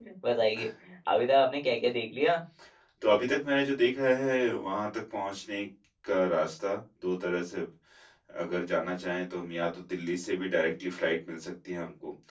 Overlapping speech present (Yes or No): No